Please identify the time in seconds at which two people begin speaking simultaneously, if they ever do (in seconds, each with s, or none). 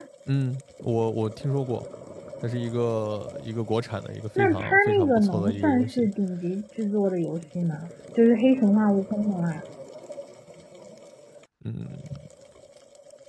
4.4 s